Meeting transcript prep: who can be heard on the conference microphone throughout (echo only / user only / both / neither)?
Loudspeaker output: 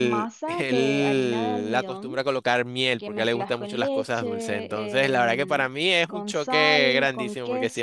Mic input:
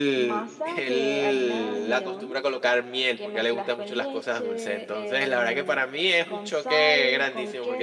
echo only